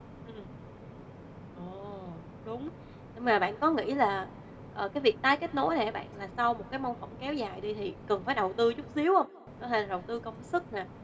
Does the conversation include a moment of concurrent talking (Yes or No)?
No